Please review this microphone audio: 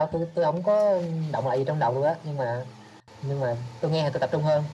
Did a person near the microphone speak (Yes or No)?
No